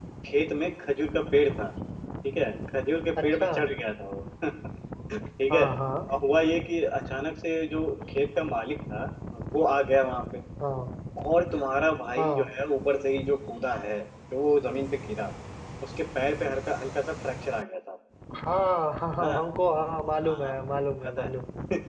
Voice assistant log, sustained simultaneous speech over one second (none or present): none